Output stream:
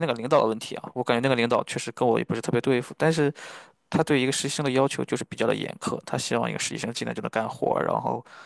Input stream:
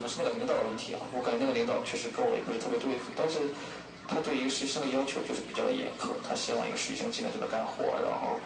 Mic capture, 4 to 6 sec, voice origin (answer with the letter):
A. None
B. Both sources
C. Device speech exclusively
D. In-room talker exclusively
C